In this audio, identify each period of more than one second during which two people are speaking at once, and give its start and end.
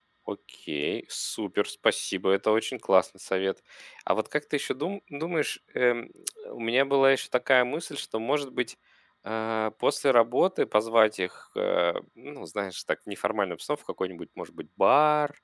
none

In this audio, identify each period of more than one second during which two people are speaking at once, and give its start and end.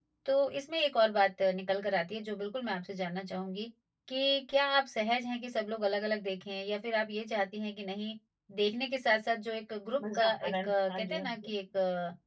10.0-11.5

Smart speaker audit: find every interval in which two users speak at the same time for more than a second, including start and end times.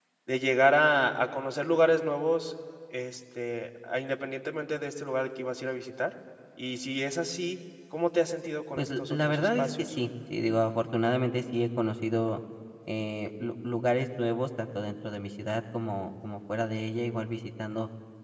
8.8-9.9

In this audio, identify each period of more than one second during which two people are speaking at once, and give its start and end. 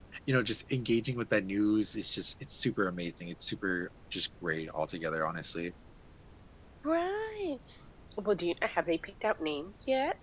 none

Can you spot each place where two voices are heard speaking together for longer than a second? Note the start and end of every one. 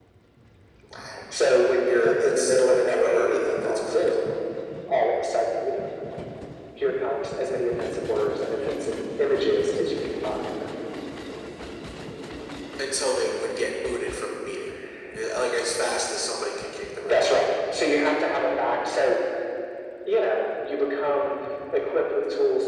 1.9-4.3

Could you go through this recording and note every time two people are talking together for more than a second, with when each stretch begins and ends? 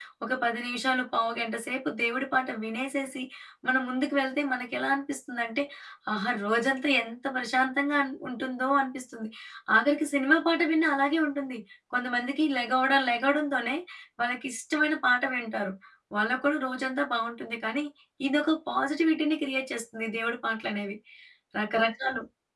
none

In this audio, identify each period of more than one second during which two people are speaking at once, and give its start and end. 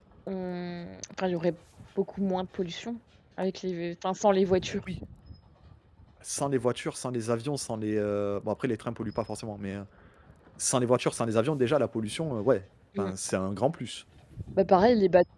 none

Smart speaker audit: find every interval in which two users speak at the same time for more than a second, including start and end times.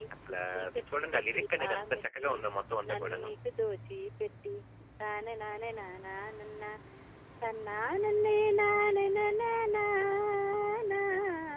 0.5-2.3

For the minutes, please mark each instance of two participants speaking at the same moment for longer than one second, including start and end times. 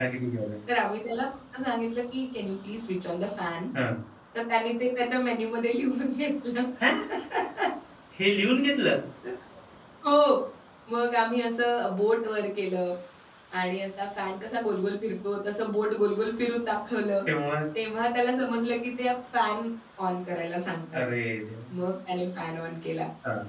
none

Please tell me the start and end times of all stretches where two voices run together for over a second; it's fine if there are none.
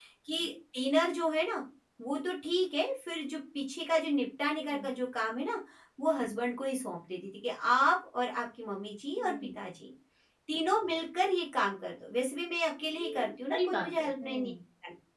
13.0-14.5

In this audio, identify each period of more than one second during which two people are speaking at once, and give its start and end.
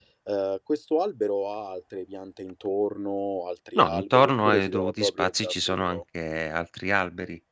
3.8-6.0

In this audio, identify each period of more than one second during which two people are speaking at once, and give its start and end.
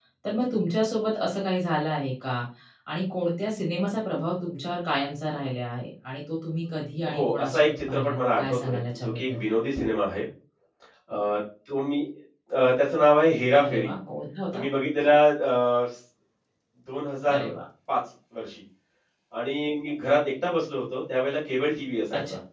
7.2-9.4

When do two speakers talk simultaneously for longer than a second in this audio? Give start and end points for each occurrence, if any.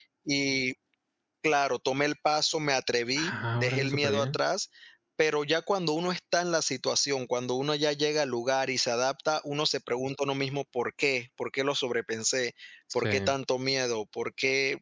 3.2-4.4

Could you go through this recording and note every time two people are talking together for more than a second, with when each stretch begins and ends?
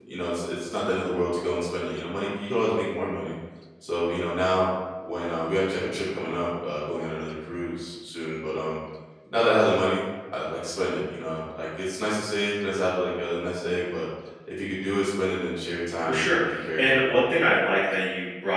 16.0-17.2

